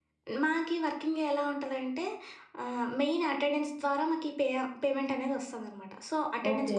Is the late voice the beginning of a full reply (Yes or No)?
No